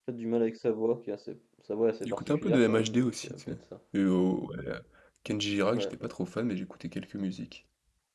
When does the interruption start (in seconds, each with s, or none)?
2.0 s